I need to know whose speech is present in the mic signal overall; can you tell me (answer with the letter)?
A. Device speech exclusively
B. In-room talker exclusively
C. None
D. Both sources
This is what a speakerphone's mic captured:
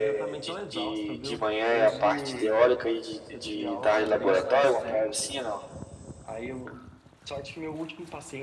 D